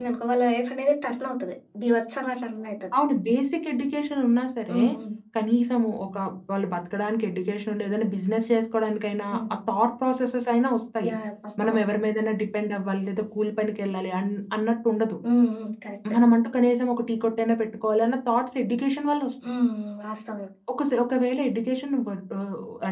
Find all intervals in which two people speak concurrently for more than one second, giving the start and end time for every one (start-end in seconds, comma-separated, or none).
none